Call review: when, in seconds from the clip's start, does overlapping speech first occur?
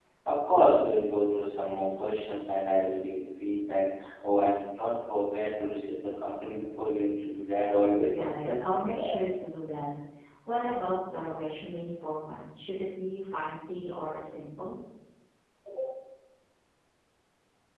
8.1 s

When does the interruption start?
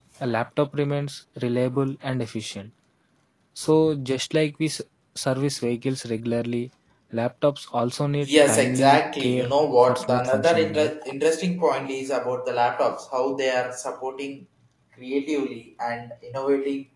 8.2 s

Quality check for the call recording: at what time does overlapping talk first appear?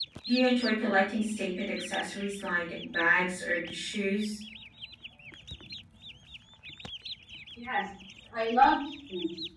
none

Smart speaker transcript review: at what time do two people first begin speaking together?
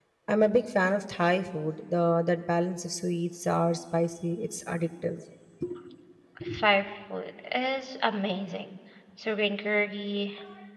none

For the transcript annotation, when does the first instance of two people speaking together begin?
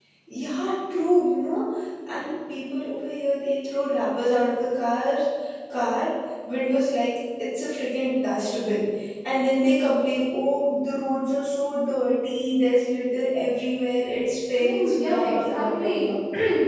14.5 s

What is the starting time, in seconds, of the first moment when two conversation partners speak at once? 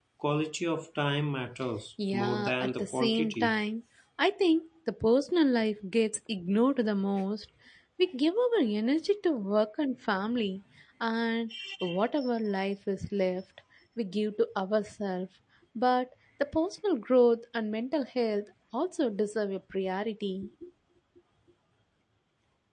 2.1 s

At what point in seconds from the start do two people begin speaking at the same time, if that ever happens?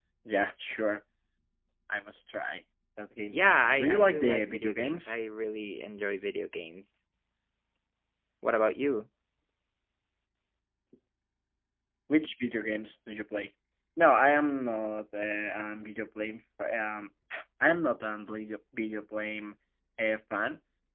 3.3 s

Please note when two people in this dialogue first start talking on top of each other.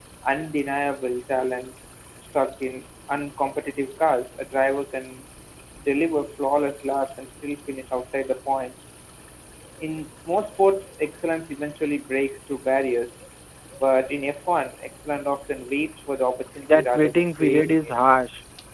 16.7 s

